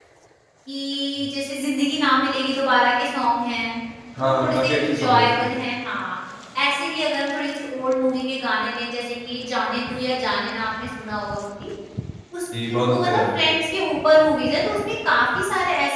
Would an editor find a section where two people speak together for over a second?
Yes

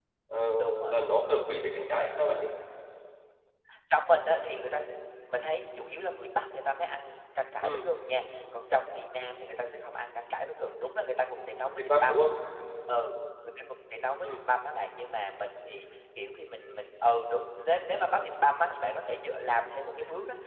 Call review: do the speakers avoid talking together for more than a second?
Yes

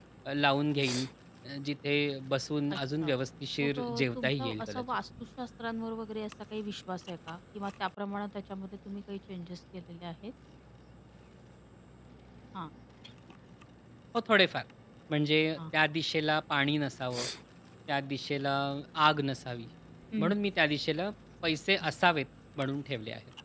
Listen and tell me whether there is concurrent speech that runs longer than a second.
Yes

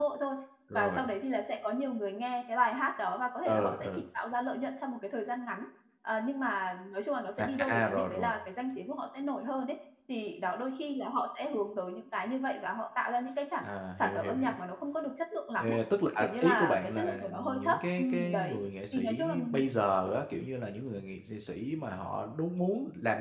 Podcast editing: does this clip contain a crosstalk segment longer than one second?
Yes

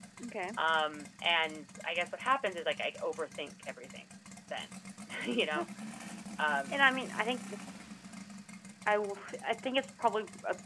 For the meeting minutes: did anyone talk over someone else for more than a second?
No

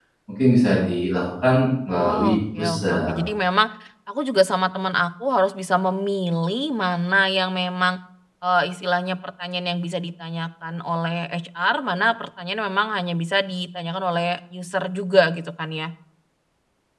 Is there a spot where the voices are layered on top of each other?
Yes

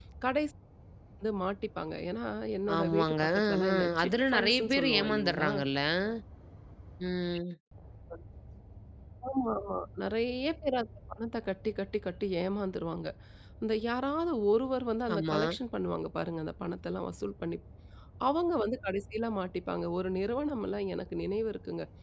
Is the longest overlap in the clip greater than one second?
Yes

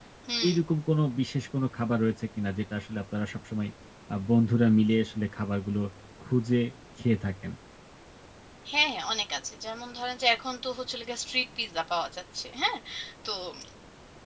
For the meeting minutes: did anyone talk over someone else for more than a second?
No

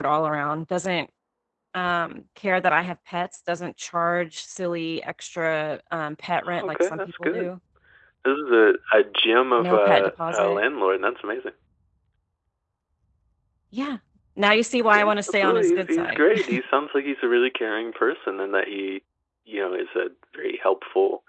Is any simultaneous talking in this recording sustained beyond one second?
Yes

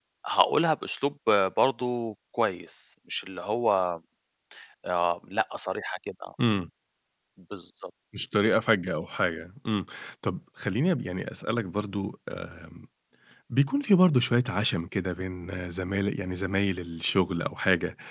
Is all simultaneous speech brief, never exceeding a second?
Yes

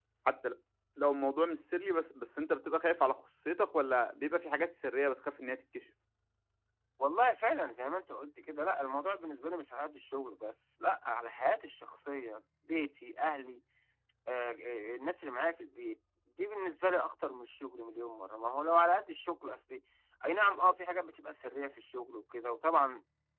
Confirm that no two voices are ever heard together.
Yes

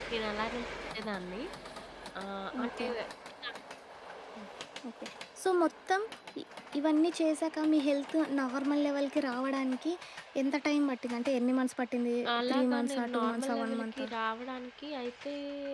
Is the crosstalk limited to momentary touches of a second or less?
No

